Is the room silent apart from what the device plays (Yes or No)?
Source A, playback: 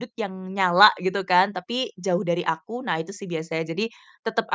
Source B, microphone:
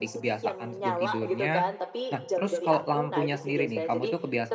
No